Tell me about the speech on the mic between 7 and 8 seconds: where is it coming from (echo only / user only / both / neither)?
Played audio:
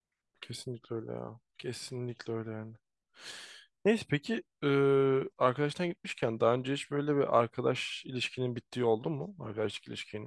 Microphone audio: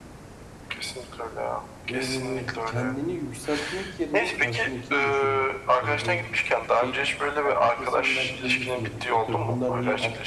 both